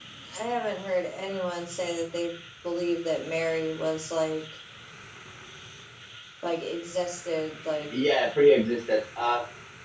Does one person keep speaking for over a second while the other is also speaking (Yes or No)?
No